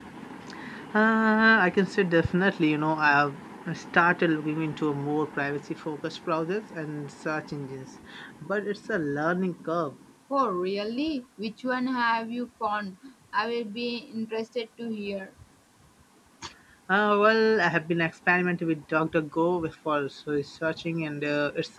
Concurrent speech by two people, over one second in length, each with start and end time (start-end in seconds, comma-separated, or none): none